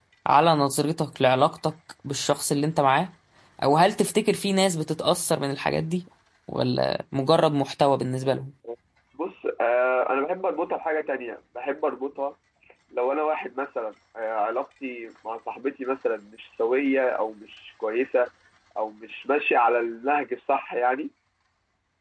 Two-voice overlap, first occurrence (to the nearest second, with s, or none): none